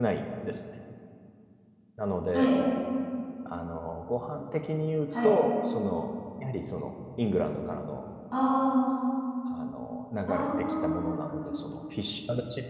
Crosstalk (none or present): present